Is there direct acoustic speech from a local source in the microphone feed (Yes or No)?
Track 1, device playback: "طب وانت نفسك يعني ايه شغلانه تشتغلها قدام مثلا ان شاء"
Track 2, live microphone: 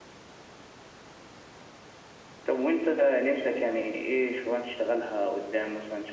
No